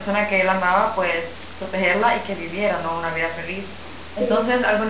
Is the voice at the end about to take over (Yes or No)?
No